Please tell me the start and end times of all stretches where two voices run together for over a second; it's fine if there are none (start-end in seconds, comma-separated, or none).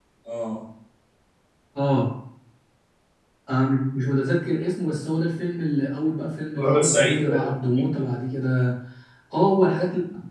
6.5-8.0